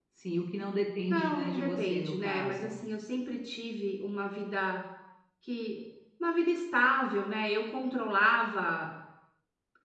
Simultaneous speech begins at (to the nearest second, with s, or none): 1 s